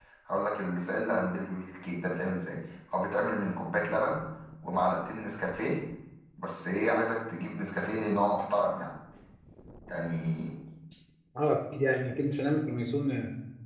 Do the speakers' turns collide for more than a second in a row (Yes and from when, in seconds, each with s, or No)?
No